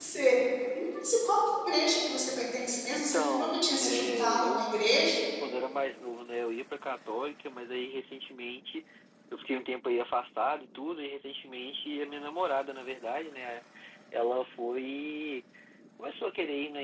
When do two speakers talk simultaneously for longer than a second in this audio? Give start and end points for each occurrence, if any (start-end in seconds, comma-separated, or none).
2.9-4.6